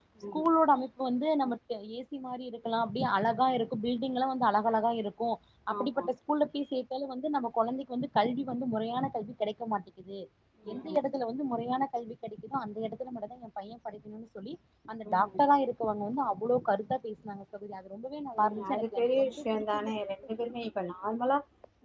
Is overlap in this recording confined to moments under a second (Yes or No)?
No